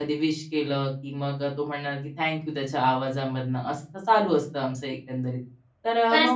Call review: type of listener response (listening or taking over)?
taking over